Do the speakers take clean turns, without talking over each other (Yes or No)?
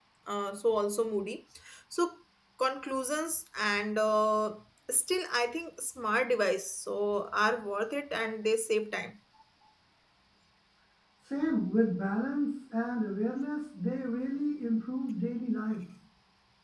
Yes